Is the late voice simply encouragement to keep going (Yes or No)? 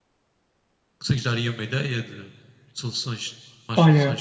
No